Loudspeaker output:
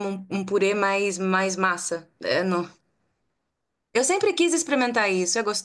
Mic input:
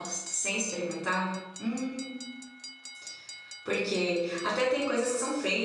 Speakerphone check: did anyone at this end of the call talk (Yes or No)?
Yes